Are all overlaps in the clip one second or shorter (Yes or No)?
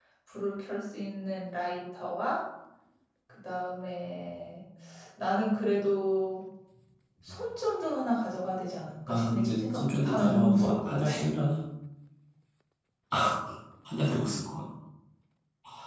No